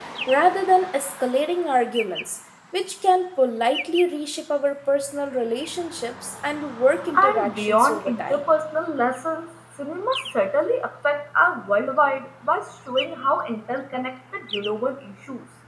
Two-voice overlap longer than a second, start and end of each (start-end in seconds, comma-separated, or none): 7.2-8.4